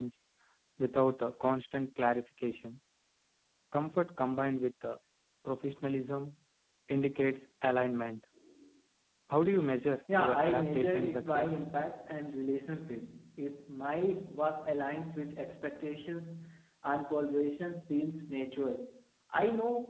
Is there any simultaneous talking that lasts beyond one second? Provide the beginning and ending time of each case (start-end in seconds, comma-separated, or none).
10.2-11.6